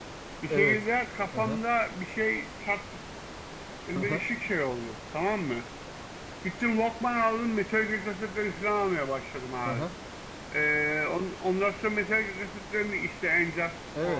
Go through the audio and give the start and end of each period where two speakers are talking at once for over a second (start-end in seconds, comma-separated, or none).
none